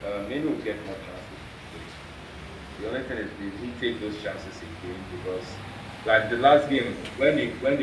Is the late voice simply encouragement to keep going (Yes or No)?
Yes